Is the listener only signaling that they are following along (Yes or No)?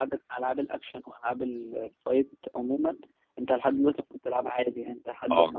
Yes